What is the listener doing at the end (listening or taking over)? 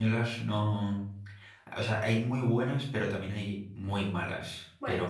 listening